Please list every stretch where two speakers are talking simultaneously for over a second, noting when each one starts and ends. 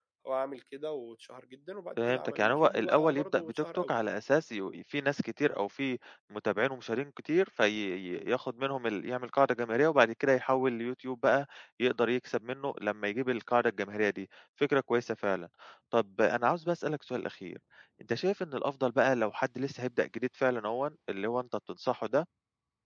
2.1-3.9

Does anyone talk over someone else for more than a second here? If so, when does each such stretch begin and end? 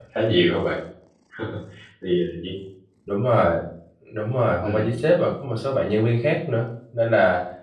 none

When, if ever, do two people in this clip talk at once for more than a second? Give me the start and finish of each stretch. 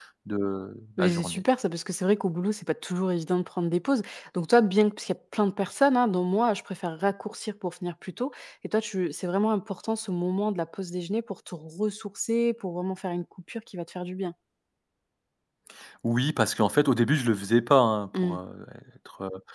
none

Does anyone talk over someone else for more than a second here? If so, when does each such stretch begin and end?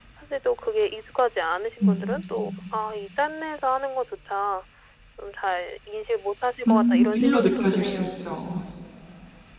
6.7-8.1

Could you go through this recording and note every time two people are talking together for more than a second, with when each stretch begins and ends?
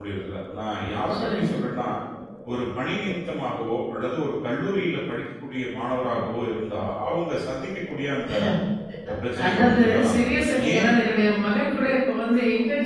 9.4-10.9

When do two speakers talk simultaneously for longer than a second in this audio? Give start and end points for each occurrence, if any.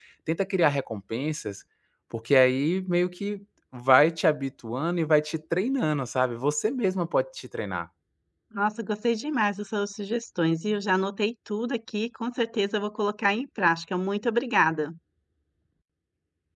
none

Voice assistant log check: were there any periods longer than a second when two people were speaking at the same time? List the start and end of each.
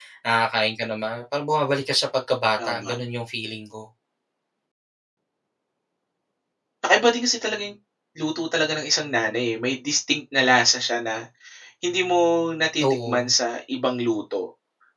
none

